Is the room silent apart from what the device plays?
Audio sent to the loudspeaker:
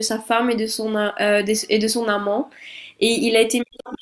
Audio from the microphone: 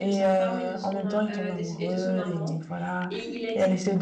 No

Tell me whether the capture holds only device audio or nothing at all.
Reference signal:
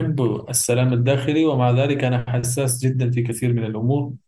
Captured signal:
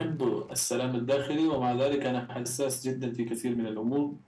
Yes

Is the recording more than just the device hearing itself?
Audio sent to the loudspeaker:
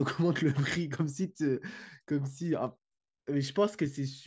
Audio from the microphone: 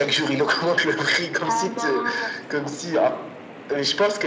Yes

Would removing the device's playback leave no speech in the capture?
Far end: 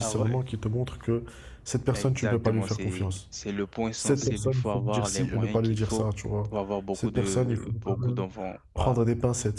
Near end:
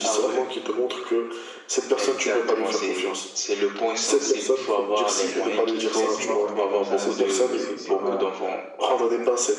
No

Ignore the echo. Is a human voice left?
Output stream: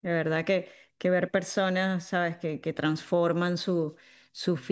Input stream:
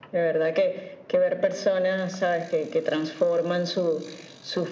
No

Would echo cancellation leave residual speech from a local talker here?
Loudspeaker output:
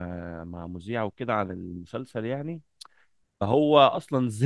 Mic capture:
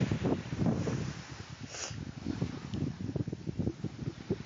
No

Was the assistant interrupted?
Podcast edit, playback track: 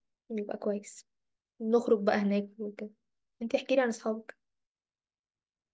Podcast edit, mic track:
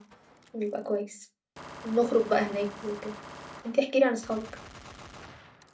No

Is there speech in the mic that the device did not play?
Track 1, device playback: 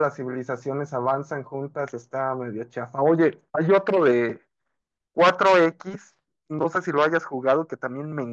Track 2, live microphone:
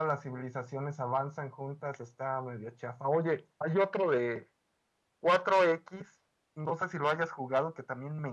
No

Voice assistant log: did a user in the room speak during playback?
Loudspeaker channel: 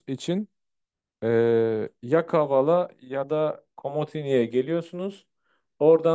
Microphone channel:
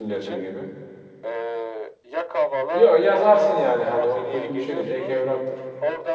Yes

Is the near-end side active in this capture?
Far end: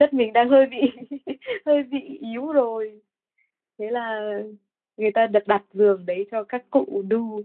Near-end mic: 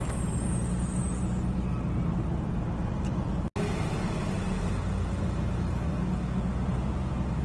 No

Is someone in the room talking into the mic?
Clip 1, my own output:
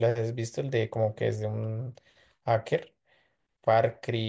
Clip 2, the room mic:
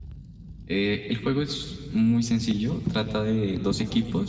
Yes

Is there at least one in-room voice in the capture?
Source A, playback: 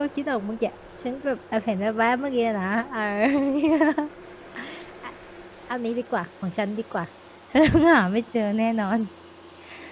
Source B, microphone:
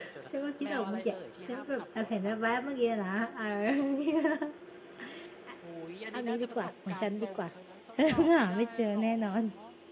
Yes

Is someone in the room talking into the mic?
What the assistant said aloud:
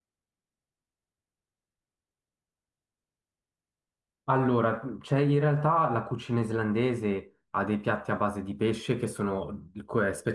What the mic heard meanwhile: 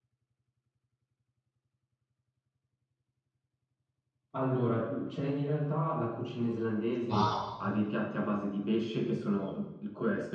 Yes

